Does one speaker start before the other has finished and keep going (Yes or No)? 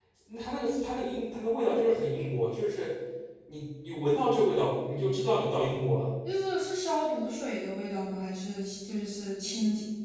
No